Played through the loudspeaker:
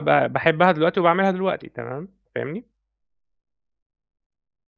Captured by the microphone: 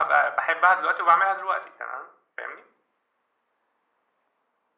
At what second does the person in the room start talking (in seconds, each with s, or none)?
none